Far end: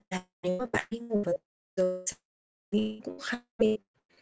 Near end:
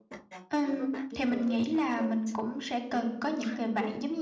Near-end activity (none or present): present